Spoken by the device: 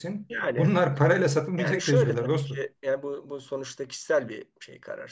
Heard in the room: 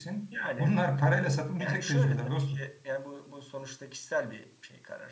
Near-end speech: none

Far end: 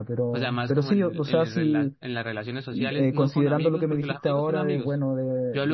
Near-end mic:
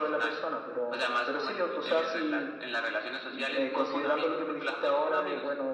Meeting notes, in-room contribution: none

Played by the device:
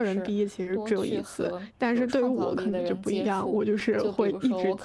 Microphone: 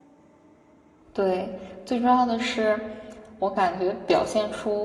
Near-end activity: present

